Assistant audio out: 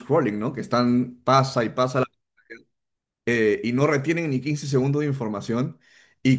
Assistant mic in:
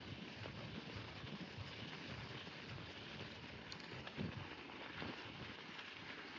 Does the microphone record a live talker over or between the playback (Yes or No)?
No